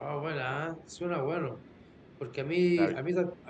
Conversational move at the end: listening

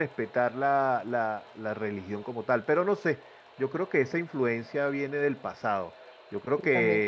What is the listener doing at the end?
listening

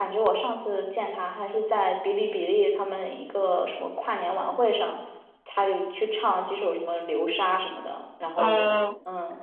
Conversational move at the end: taking over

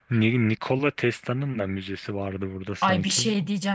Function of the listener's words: taking over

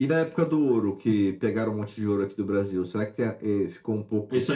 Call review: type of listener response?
taking over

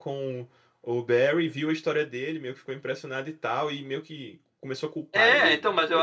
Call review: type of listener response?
taking over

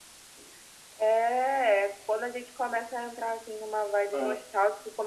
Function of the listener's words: listening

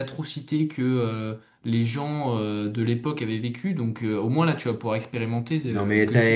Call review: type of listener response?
taking over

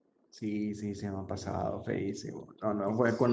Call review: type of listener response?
listening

